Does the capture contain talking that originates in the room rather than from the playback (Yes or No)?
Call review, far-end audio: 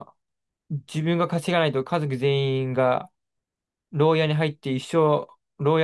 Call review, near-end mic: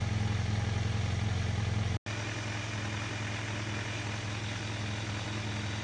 No